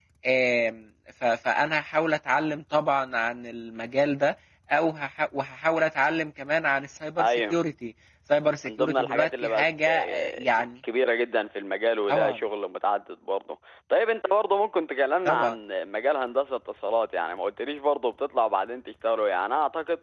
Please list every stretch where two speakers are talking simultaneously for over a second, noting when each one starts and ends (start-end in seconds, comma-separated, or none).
8.6-10.7